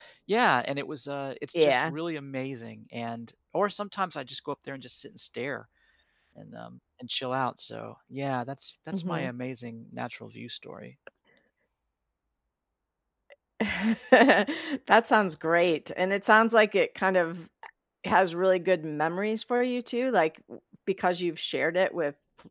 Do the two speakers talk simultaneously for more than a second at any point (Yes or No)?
No